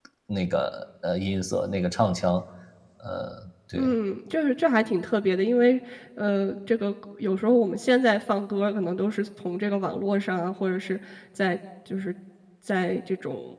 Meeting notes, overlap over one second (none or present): none